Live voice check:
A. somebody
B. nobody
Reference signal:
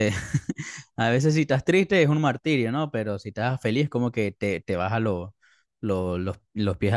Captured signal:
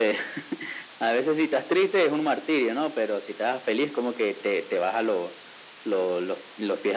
B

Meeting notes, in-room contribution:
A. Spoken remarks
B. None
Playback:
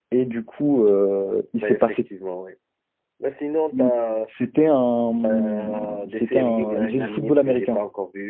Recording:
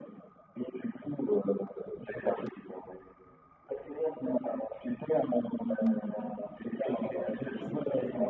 A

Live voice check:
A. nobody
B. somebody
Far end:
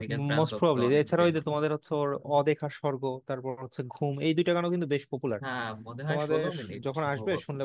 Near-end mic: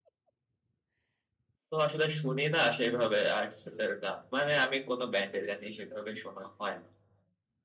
B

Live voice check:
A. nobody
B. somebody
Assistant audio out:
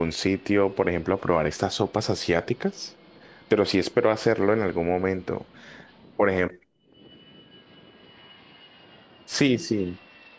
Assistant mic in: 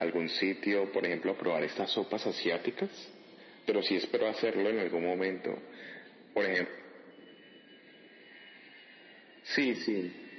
A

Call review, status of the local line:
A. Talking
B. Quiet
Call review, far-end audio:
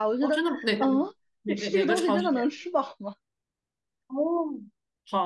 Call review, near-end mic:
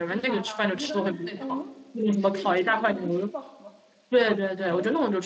A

